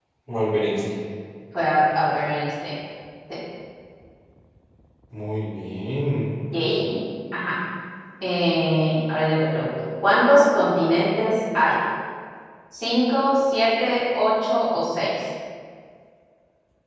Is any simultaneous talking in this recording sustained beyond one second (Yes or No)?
No